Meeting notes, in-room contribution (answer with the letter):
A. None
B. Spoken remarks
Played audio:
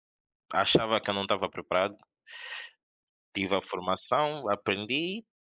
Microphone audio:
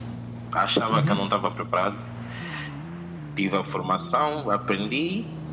B